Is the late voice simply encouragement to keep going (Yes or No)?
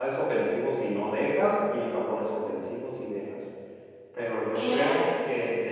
Yes